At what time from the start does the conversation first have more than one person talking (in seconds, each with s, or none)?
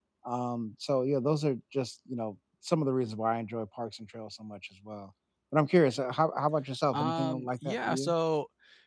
6.9 s